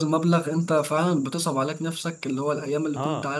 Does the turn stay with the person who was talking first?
Yes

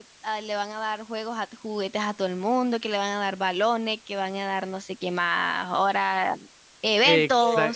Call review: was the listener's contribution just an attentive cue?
No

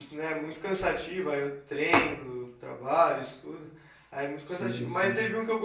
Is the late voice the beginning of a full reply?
No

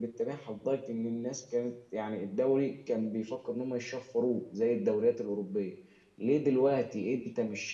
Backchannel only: Yes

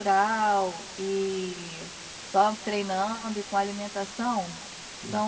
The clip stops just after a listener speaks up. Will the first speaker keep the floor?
Yes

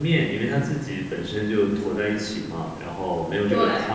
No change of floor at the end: Yes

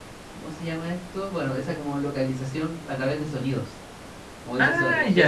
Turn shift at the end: No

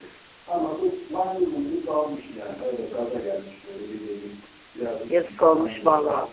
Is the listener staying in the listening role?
No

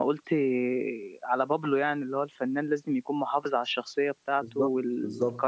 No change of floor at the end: Yes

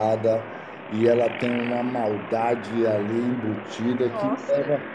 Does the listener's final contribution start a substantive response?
No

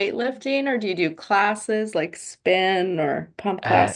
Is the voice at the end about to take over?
Yes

